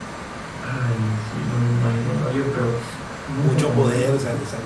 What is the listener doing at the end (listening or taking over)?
taking over